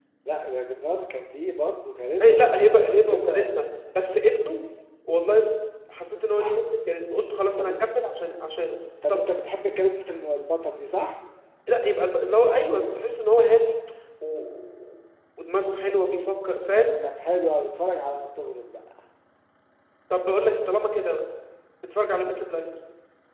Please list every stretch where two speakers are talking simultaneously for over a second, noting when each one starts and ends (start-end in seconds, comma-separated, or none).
2.2-3.6